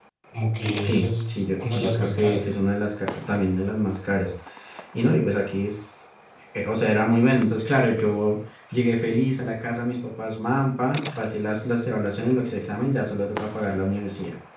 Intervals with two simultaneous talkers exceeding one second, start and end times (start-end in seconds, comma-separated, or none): 0.8-2.5